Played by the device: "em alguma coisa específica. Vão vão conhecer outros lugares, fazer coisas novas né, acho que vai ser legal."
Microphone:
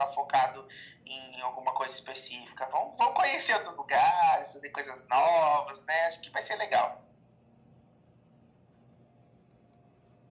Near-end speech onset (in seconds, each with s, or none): none